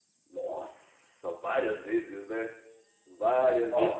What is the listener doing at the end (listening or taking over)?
listening